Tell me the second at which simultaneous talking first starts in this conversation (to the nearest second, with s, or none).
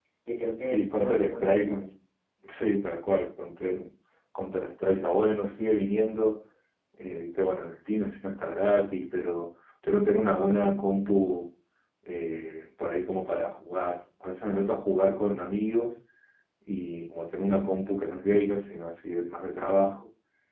1 s